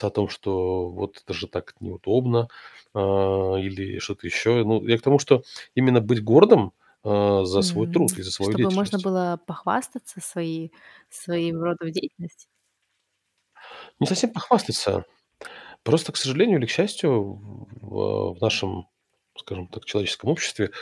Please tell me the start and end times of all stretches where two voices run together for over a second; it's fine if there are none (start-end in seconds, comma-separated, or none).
7.6-9.0